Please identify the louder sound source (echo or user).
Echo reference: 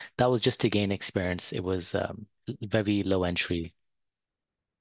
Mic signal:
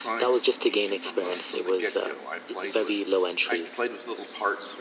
echo